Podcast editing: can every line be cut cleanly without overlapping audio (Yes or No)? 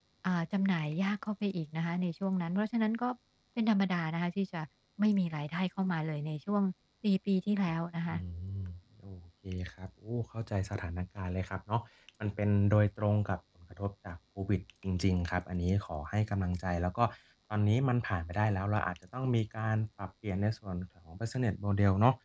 Yes